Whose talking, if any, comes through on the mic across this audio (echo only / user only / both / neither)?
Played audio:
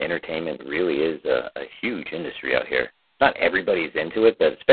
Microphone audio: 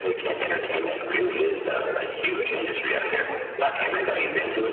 both